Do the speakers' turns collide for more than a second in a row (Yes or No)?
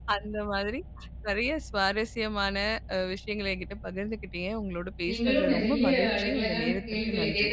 Yes